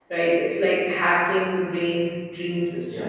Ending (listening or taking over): listening